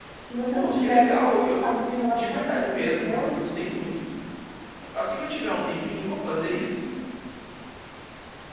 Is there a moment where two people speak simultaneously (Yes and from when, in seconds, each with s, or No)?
Yes, from 0.5 s